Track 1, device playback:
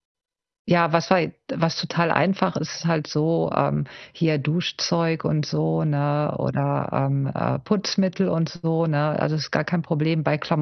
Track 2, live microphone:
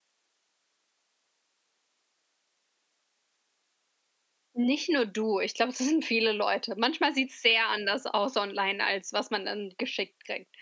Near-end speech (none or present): present